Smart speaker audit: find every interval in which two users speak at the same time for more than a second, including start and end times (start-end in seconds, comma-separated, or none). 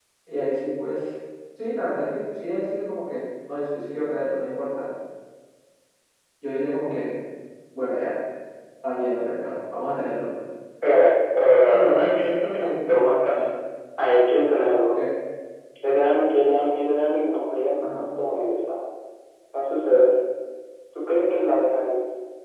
11.7-12.9